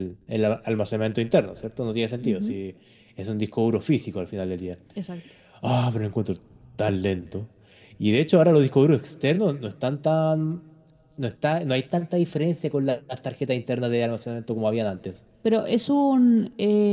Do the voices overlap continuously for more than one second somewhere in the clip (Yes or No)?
No